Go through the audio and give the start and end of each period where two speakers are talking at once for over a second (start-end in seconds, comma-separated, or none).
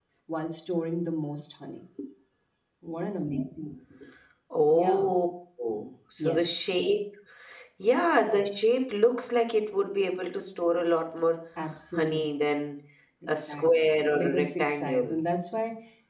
13.3-15.2